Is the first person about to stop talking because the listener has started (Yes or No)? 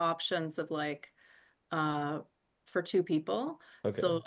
No